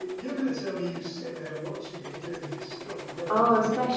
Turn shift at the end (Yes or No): Yes